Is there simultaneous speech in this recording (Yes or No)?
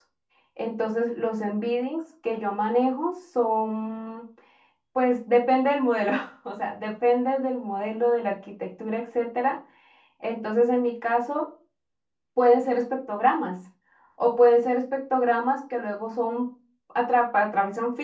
No